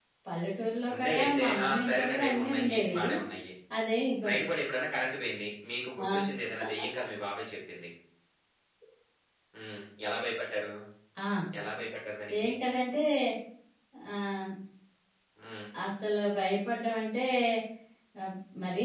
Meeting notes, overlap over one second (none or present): present